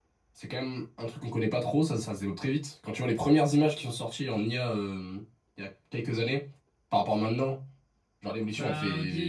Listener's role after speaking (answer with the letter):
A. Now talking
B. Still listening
A